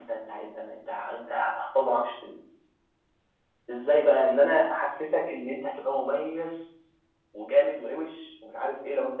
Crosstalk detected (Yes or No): No